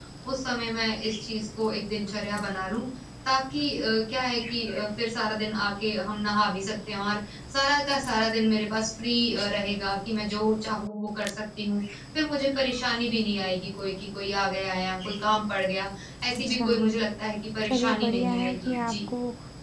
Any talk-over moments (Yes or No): Yes